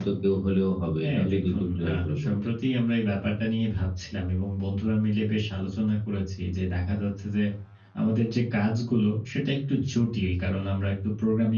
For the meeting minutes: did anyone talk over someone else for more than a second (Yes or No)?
Yes